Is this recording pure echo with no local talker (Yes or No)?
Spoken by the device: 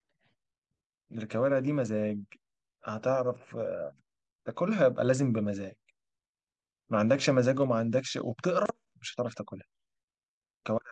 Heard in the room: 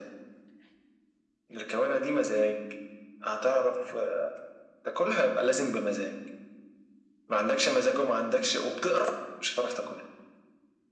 Yes